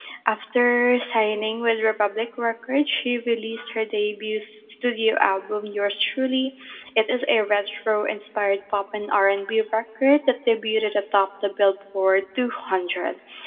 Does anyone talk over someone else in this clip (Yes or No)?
No